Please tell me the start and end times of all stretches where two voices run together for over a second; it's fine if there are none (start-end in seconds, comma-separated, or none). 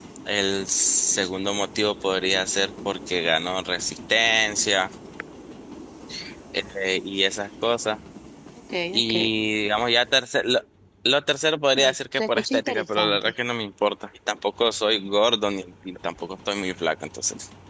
11.7-13.3